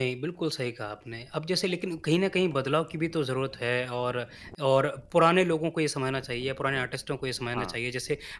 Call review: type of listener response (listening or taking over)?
listening